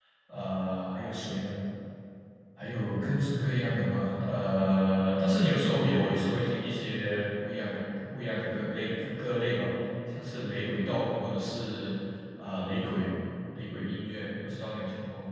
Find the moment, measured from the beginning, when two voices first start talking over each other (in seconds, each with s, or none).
none